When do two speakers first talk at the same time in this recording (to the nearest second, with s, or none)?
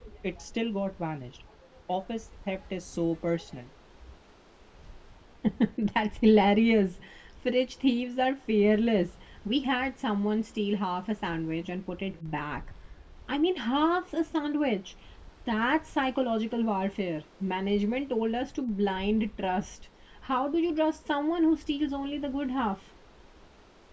none